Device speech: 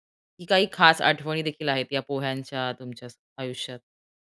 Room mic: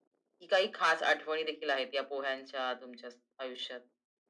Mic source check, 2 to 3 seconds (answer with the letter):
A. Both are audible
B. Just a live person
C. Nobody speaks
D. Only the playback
D